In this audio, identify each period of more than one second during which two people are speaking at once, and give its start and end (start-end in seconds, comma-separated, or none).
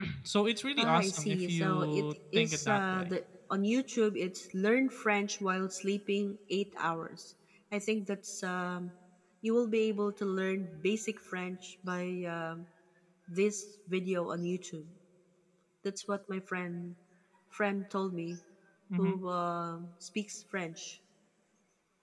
0.8-3.1